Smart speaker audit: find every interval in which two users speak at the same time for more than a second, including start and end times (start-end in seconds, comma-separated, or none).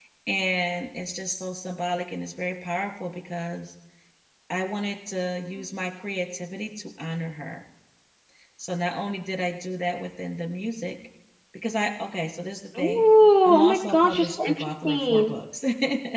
13.6-15.3